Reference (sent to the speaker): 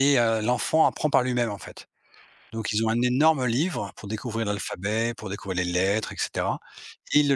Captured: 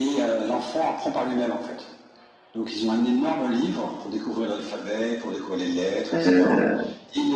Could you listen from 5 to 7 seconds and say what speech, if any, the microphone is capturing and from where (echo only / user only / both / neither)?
both